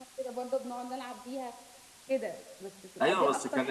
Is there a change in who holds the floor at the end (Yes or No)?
Yes